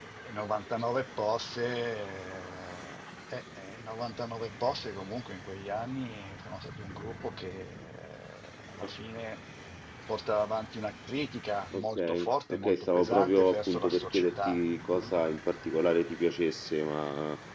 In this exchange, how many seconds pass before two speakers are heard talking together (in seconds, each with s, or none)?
11.7 s